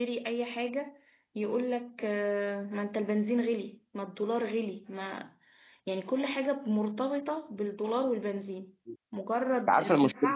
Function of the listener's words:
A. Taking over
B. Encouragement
B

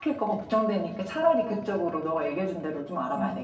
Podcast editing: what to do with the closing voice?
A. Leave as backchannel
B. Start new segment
B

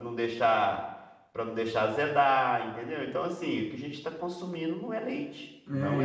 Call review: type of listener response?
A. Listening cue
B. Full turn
B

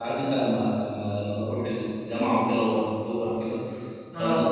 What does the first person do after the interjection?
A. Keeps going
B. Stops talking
A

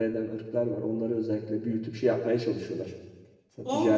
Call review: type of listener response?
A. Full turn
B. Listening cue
A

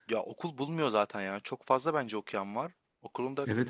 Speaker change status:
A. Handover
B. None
A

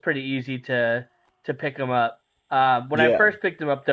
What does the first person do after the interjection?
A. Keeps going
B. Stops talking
A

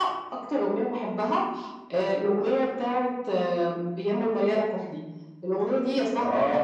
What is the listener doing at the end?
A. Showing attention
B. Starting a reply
A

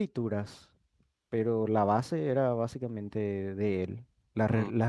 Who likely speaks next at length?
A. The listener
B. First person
B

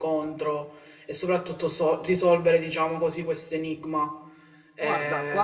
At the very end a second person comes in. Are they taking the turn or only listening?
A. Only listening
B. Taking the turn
B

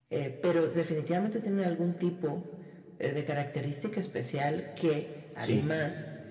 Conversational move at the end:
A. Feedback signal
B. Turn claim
A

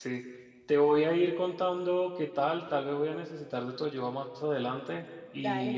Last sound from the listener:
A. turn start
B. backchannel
B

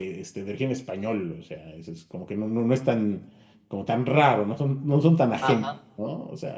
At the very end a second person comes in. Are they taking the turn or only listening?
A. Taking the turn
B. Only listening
B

